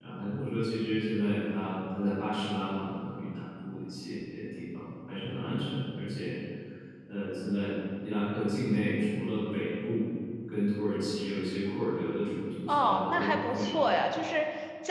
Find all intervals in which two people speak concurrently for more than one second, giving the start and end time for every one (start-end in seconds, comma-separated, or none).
12.7-14.1